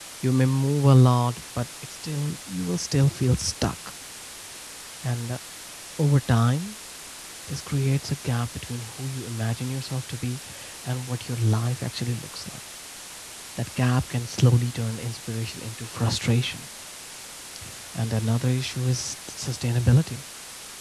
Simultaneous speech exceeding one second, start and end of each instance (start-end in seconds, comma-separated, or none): none